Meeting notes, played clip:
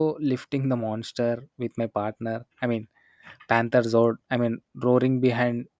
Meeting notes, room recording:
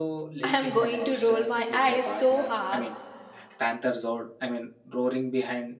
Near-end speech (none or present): present